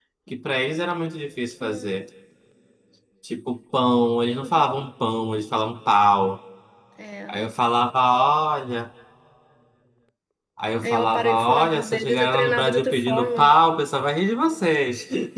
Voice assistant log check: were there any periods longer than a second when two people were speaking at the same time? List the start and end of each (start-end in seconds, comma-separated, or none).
10.8-13.6